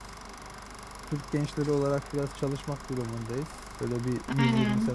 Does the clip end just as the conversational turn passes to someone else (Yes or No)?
Yes